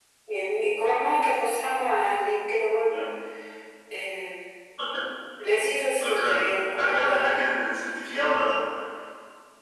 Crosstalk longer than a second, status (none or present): present